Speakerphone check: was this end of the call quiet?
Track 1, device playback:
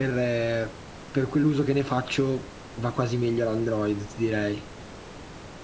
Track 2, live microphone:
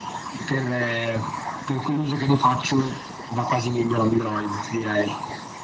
Yes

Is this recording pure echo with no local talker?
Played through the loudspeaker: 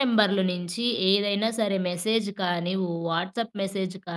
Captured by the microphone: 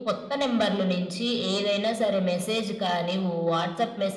Yes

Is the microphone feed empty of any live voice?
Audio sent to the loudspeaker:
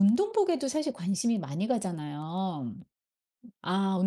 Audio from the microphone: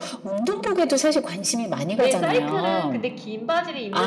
No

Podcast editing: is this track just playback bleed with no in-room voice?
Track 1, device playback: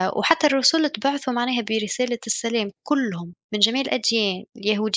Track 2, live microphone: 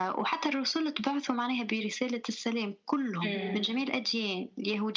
No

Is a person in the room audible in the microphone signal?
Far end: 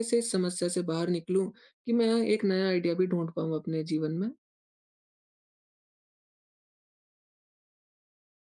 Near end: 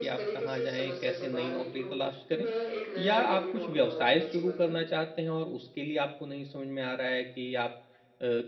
Yes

